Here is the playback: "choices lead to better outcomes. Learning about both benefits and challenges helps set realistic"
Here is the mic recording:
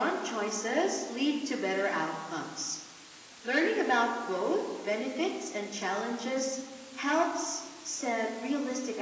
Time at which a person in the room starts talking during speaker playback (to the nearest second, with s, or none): none